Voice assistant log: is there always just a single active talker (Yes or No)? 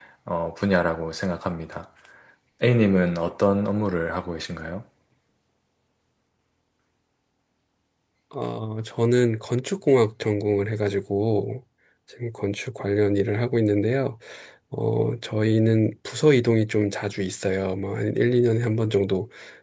Yes